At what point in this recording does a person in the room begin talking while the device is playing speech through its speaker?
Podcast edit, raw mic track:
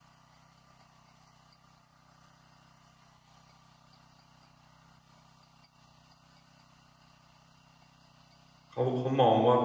8.7 s

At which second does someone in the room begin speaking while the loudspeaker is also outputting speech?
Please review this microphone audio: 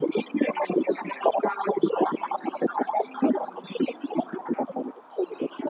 none

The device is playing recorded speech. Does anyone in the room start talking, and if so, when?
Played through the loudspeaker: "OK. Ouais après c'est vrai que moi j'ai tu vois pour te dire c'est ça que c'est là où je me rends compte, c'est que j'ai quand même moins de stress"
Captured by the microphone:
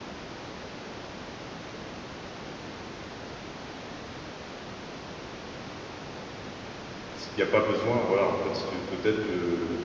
7.2 s

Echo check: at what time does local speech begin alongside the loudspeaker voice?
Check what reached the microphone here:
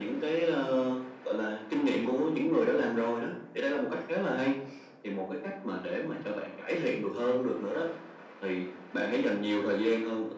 none

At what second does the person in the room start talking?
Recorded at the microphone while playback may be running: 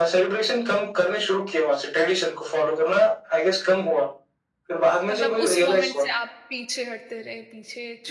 5.1 s

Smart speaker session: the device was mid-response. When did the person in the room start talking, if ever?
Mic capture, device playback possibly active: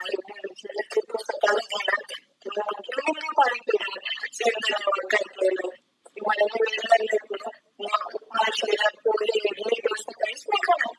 none

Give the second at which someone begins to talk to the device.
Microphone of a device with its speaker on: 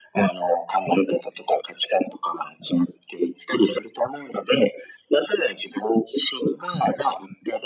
none

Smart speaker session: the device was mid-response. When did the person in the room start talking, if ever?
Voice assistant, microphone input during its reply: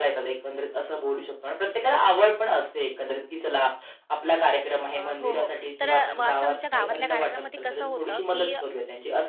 4.8 s

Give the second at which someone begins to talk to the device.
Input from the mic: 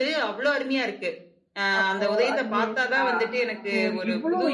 1.8 s

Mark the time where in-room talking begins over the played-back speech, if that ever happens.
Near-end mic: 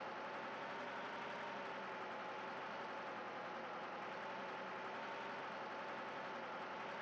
none

